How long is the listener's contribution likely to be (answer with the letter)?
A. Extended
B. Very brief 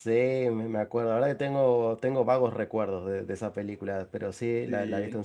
B